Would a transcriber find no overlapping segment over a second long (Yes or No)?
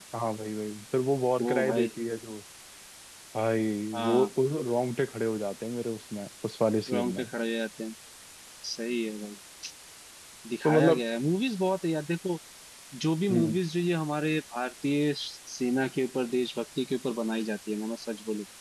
Yes